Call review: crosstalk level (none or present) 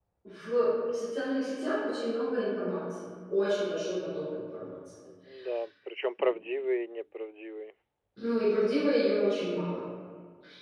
none